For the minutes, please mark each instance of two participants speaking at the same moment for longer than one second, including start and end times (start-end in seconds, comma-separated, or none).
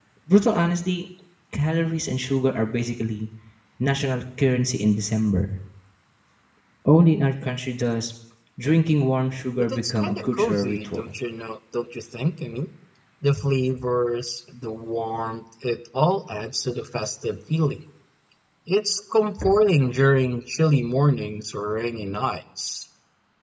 9.6-11.2